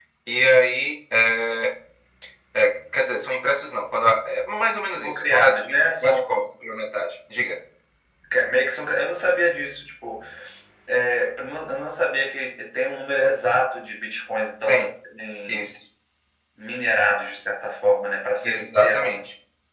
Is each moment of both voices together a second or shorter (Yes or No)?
No